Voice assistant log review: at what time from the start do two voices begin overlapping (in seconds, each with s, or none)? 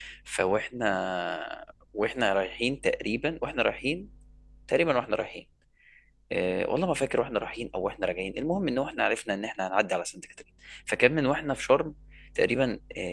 none